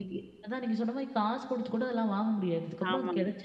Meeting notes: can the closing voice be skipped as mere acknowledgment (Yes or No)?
Yes